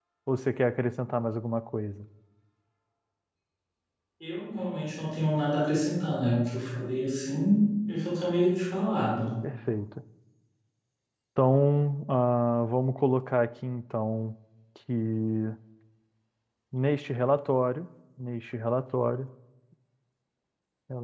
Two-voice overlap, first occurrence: none

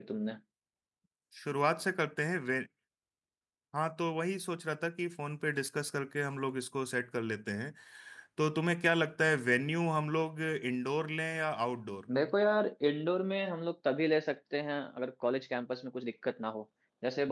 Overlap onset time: none

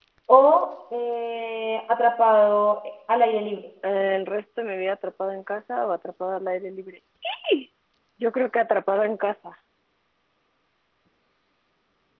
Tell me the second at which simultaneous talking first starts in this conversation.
none

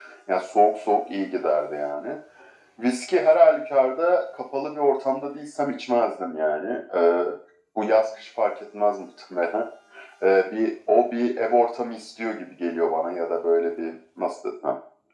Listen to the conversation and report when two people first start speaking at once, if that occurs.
none

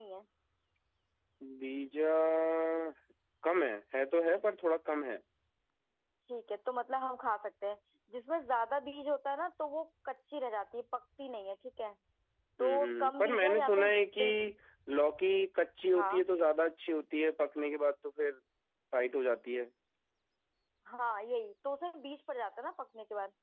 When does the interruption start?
12.6 s

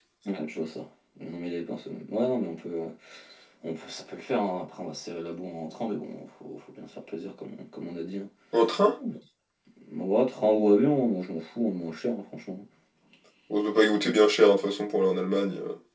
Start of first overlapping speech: none

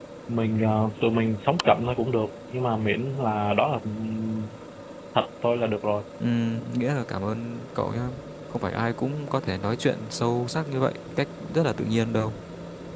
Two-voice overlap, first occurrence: none

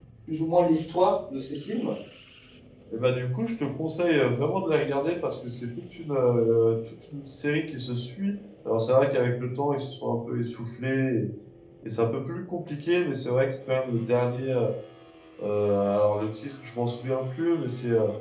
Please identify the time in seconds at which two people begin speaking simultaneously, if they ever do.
none

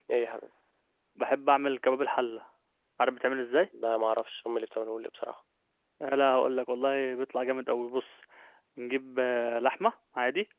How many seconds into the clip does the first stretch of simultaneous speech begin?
none

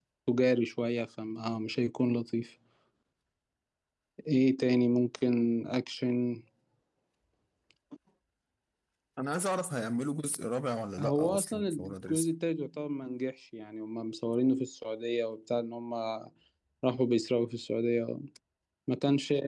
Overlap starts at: 11.0 s

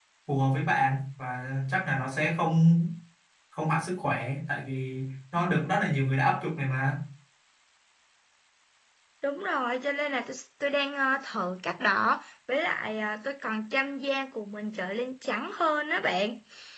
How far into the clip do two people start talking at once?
none

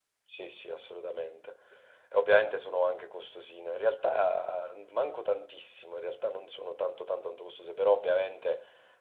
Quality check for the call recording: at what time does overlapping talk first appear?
none

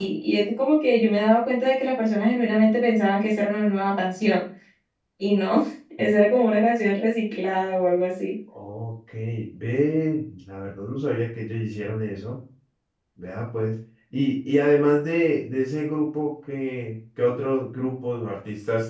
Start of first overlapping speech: none

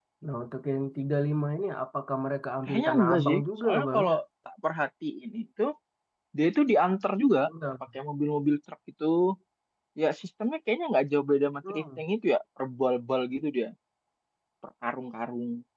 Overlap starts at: 2.7 s

